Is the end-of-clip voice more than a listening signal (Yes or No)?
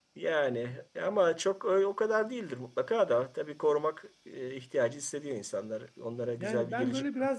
Yes